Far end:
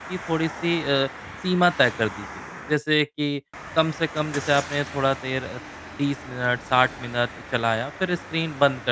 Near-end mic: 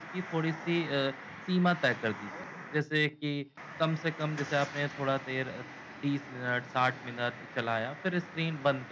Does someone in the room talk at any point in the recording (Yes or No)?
No